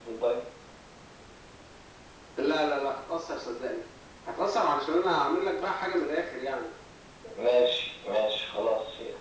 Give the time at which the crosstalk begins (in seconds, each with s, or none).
none